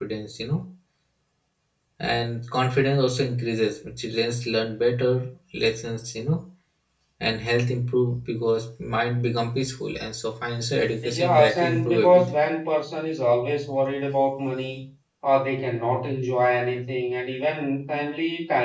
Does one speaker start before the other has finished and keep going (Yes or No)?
Yes